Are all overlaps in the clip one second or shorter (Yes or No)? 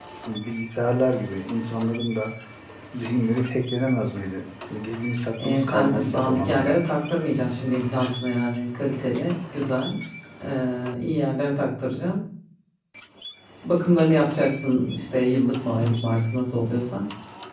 No